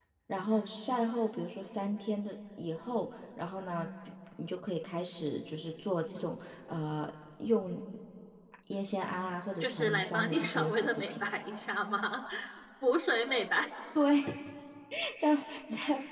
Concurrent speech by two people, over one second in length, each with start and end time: 9.6-11.2

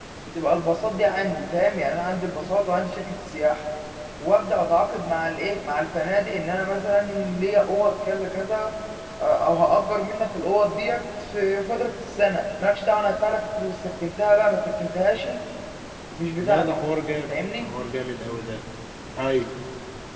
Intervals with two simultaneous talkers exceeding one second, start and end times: none

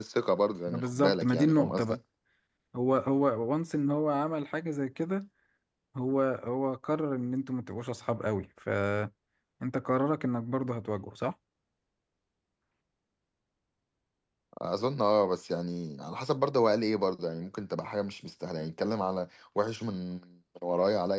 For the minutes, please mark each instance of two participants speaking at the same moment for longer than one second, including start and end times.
0.7-2.0

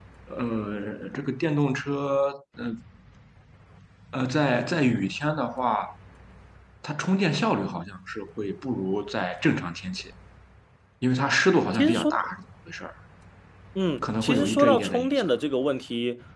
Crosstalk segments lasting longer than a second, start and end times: 14.0-15.3

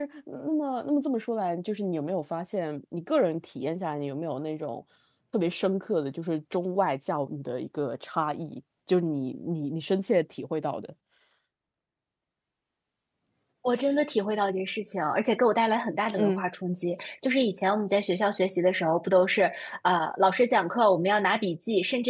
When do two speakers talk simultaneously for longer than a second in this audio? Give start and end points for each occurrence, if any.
none

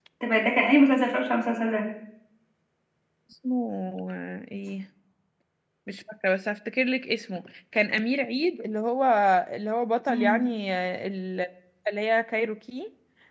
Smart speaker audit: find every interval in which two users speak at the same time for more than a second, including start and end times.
none

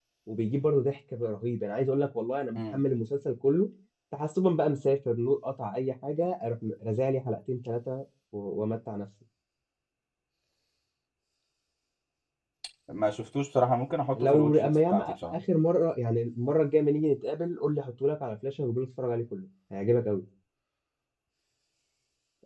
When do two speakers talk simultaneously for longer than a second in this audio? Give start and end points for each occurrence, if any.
14.2-15.4

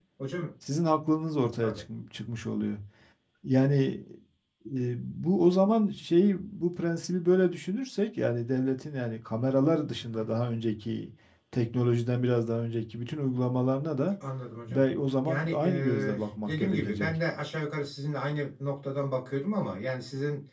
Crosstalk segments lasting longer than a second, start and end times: 15.2-17.1

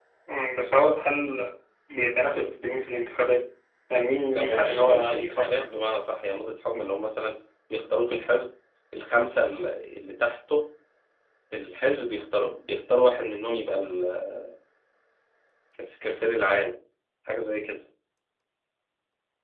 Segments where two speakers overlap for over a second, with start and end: 4.3-5.7

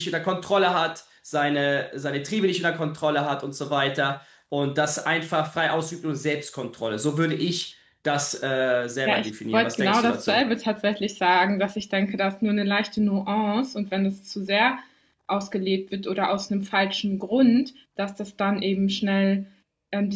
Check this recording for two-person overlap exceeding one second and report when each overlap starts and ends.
9.1-10.4

